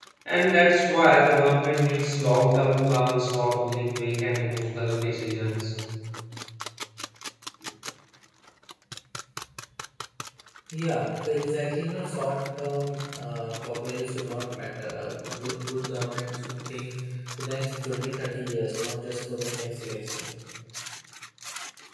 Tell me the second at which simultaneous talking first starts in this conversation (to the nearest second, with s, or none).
none